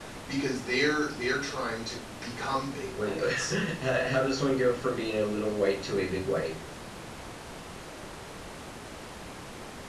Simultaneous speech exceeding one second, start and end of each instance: none

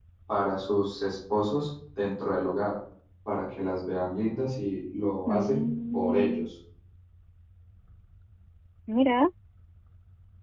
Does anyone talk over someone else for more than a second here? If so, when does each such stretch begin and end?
5.3-6.5

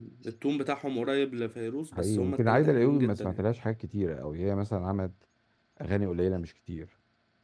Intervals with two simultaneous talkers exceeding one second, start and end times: 1.9-3.4

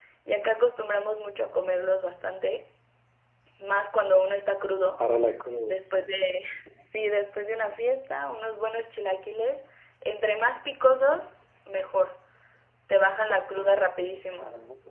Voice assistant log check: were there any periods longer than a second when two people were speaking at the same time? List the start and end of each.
none

